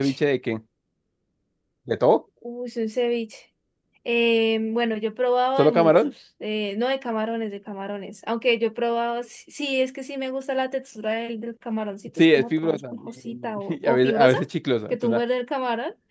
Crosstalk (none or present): present